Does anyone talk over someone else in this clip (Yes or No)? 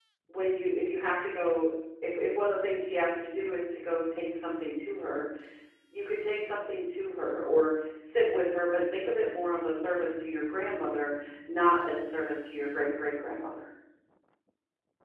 No